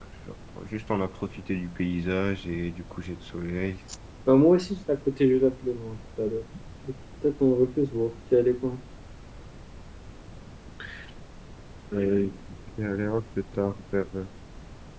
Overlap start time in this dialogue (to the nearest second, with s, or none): none